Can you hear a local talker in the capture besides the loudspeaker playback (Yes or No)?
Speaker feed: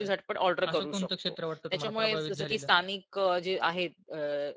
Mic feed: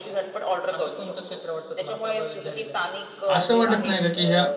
Yes